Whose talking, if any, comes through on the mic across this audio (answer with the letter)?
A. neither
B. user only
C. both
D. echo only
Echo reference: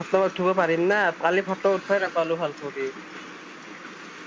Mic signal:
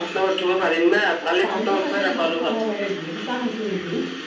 C